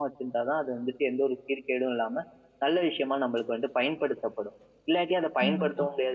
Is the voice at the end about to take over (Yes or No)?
No